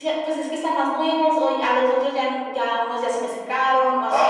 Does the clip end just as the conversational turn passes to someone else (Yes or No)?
Yes